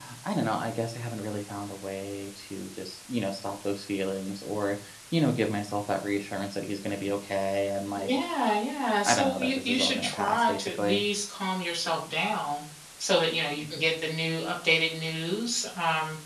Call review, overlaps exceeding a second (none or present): present